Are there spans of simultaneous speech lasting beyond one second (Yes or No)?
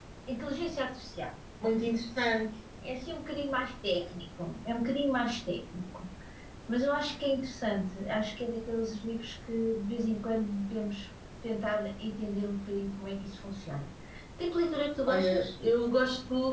No